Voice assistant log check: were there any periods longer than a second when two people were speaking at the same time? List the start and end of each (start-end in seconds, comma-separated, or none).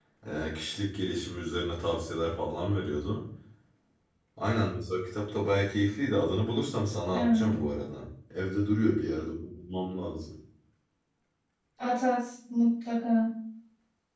none